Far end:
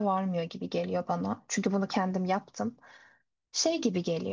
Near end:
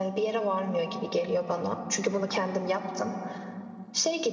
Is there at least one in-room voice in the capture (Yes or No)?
No